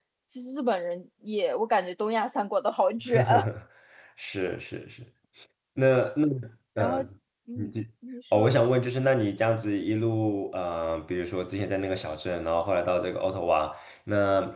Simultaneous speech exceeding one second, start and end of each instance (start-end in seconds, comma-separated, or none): none